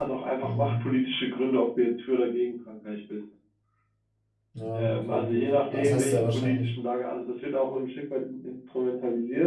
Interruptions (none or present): present